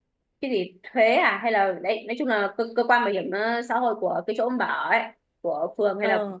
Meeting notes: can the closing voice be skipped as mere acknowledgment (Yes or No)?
Yes